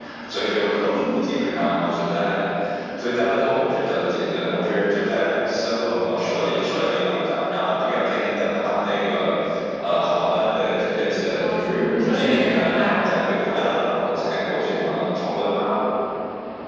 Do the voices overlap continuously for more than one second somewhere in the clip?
Yes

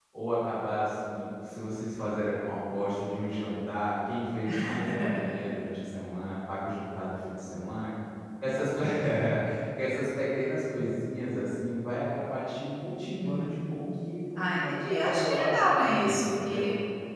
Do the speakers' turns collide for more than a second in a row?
Yes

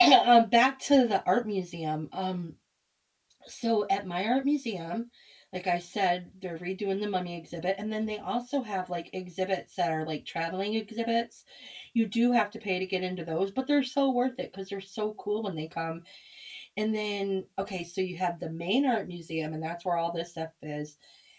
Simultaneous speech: No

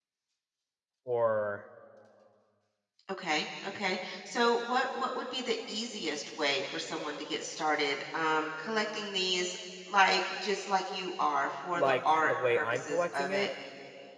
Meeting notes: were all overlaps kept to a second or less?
No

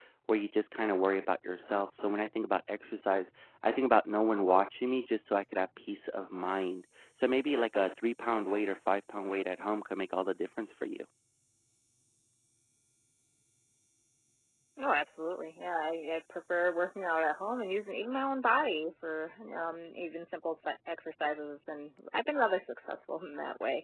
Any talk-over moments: No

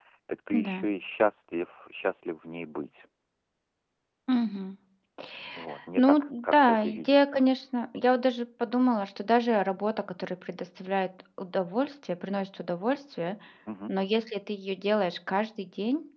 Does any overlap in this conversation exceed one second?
Yes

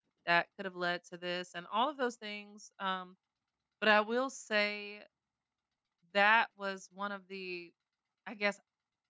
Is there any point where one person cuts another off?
No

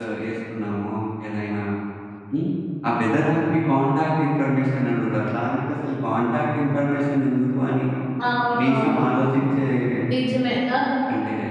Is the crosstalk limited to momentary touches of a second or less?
Yes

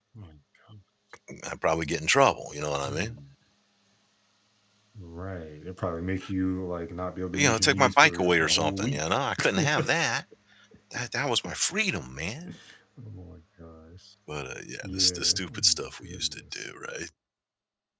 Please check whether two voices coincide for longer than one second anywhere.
Yes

